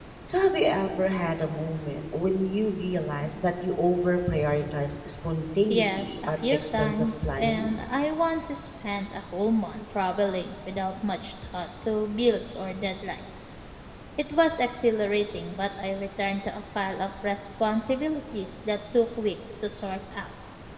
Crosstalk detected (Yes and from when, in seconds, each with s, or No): Yes, from 5.7 s